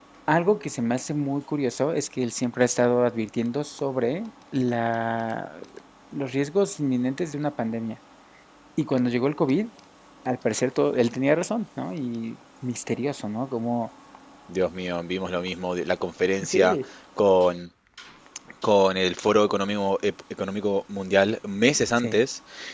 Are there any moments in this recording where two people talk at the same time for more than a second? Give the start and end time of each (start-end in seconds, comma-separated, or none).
none